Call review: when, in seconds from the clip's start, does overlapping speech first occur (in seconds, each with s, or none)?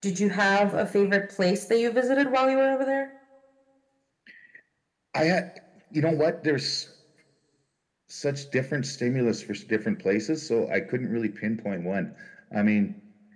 none